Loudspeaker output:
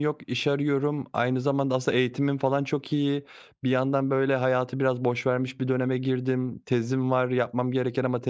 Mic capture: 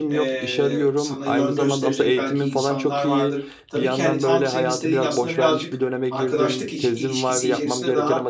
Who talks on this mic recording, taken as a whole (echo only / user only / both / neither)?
both